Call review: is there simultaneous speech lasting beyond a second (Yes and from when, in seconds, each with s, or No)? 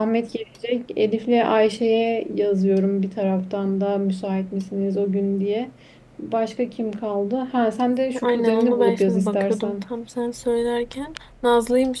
Yes, from 8.1 s